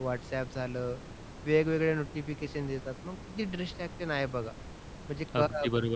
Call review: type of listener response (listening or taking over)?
taking over